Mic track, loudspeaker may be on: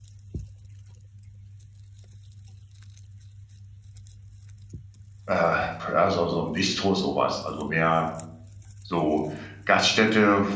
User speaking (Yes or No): Yes